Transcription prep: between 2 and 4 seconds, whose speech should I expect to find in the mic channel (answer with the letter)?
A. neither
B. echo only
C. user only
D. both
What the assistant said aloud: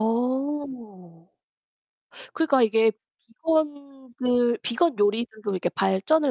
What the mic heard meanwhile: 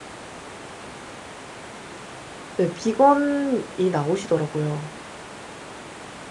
C